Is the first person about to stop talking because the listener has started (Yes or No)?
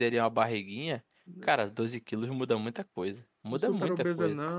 Yes